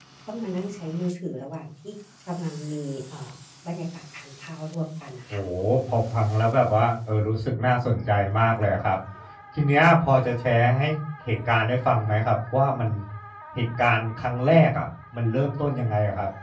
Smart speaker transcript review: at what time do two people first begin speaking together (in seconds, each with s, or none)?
none